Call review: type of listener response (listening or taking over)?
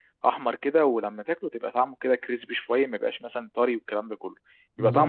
taking over